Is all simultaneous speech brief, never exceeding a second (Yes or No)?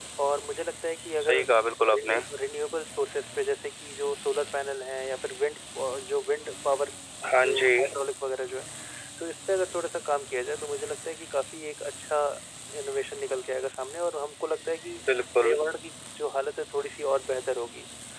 Yes